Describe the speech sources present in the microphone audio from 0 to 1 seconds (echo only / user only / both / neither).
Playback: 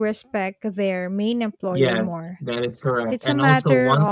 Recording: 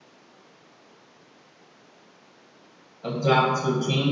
neither